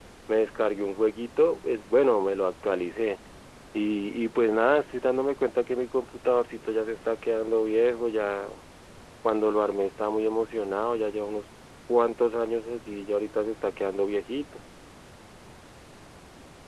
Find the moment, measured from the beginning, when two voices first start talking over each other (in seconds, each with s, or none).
none